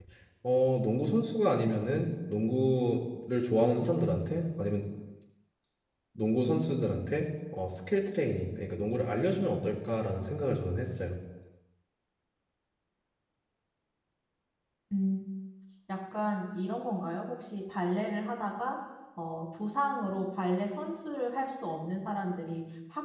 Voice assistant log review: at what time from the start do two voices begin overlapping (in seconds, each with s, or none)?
none